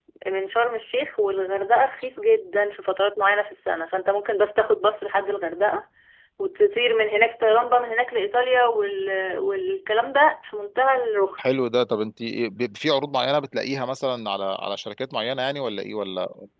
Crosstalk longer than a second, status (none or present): none